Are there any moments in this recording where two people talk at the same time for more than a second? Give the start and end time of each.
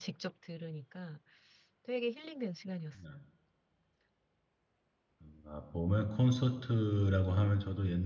none

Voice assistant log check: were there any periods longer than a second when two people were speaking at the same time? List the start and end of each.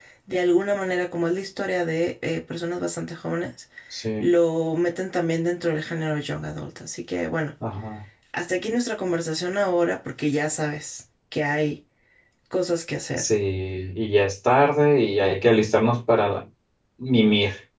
none

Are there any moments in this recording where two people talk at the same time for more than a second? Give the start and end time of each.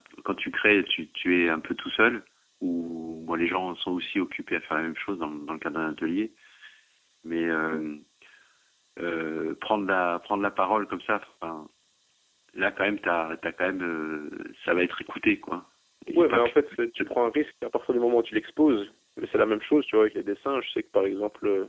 16.1-17.3

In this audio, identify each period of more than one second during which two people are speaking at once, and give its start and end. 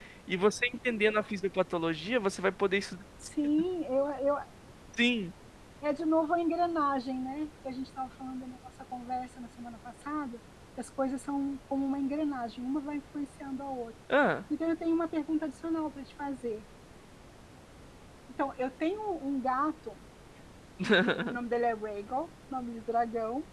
none

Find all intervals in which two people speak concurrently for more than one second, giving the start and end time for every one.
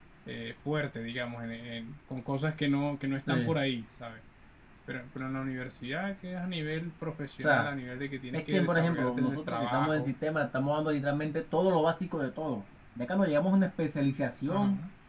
8.3-10.1

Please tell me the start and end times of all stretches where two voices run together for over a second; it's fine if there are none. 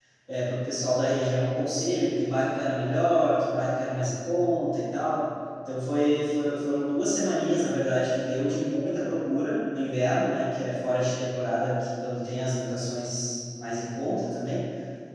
none

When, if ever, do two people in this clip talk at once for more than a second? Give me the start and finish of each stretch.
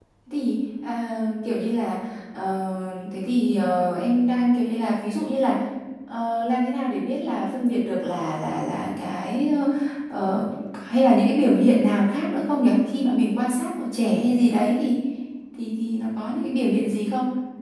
none

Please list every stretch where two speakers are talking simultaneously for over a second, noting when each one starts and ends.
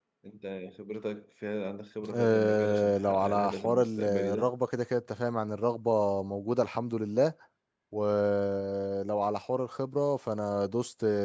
2.2-4.5

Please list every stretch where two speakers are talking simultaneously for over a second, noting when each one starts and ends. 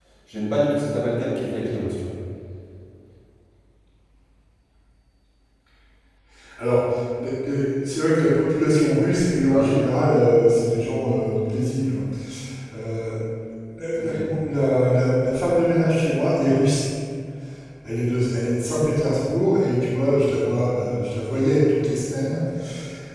none

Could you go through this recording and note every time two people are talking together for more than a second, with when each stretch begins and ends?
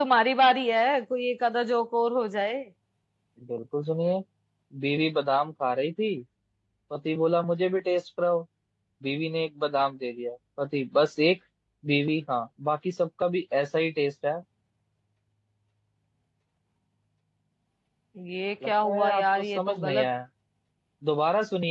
18.7-20.1

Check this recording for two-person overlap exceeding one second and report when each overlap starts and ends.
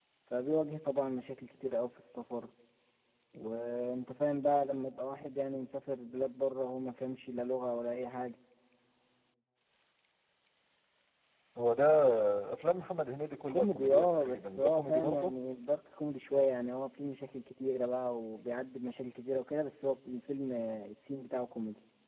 13.5-15.3

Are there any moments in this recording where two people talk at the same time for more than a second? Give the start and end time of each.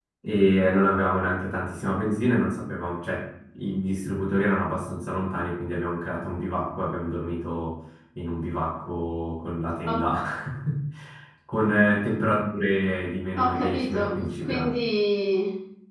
13.4-14.7

